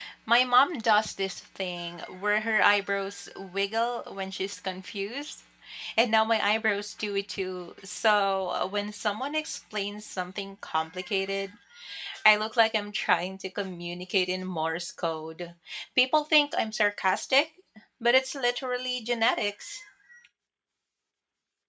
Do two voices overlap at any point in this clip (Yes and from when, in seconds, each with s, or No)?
No